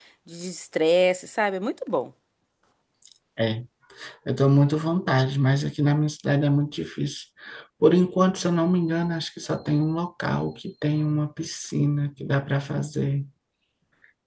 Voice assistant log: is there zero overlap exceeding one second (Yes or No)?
Yes